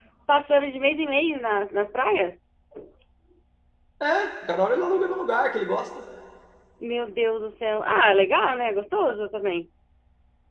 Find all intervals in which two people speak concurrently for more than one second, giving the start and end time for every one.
none

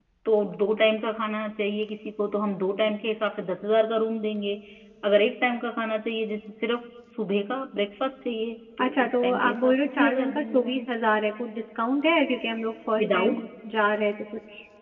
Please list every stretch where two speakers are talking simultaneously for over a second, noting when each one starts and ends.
8.8-10.8

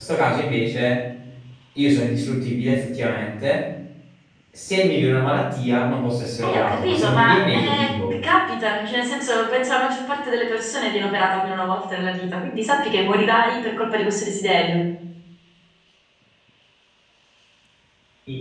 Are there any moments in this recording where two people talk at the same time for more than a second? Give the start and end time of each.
6.4-8.1

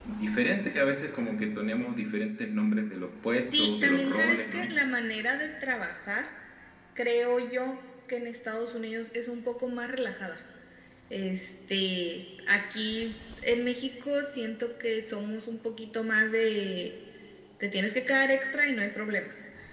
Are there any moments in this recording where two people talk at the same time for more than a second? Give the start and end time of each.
3.4-4.8

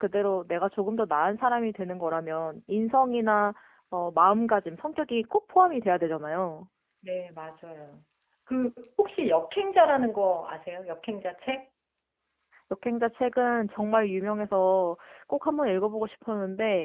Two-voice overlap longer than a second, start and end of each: none

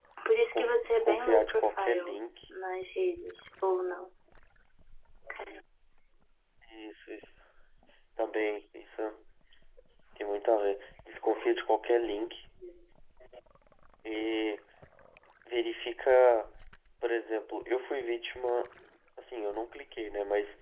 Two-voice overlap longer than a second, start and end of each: 0.5-2.2

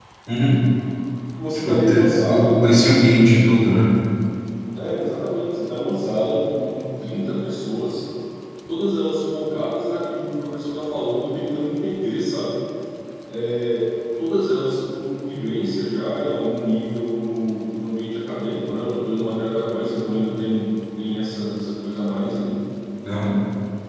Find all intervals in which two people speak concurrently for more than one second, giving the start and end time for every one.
1.5-2.9

